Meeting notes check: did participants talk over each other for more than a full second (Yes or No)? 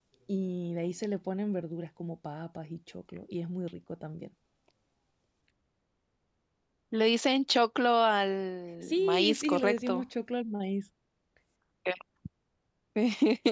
Yes